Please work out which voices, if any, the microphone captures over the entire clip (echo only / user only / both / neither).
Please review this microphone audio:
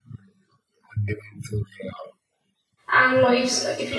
both